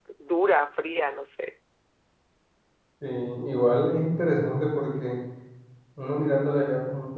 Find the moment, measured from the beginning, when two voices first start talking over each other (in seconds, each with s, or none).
none